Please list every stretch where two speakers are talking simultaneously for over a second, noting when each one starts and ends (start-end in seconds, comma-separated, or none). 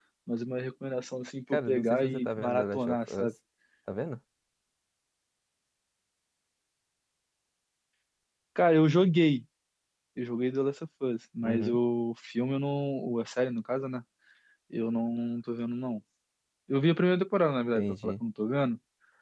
1.5-3.3